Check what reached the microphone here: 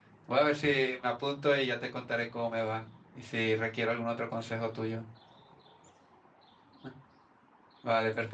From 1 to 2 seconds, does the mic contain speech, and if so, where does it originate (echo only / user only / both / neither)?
user only